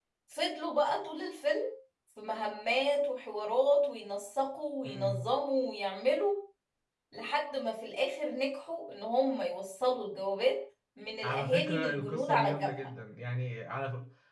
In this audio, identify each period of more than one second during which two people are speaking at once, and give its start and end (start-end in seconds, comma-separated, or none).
11.2-12.7